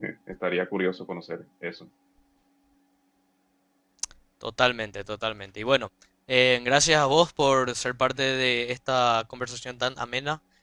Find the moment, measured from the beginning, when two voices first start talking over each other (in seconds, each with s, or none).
none